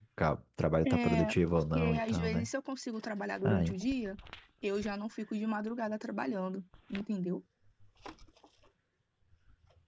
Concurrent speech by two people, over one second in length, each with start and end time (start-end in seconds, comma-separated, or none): 0.8-2.5